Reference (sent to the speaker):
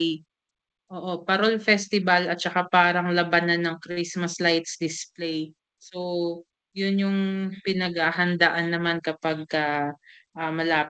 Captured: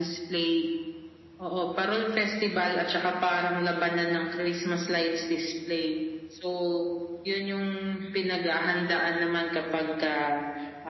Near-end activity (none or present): none